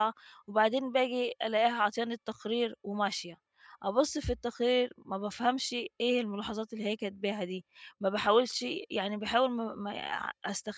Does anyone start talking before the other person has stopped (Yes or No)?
No